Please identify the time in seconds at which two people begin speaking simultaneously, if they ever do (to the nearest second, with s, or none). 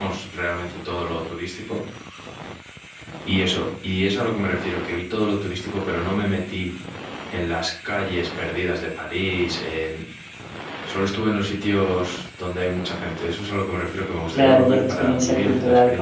14 s